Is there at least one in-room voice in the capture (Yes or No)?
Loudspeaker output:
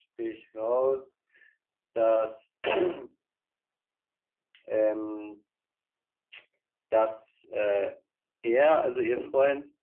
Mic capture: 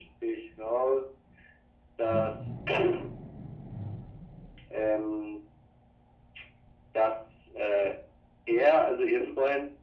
No